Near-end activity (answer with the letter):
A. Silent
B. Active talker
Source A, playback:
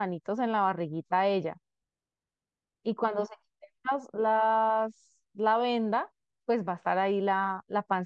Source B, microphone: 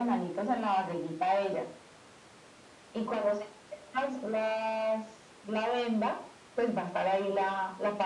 A